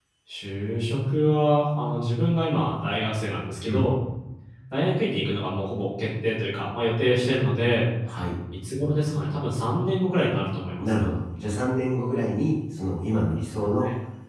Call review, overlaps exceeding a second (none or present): none